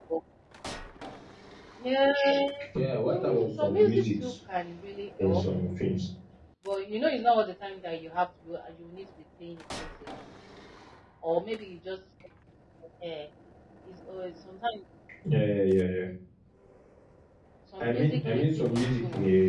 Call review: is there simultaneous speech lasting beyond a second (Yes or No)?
Yes